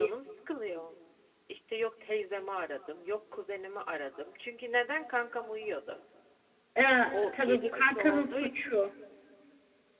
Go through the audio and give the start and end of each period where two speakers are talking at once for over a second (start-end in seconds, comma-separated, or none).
7.1-8.5